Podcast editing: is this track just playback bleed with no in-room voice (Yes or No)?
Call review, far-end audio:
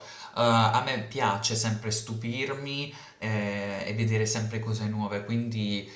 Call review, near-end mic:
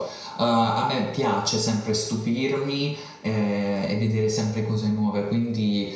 Yes